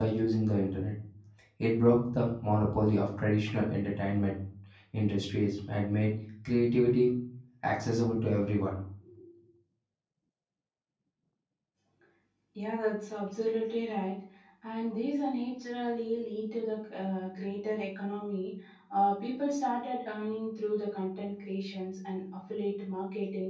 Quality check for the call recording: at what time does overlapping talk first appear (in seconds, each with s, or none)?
none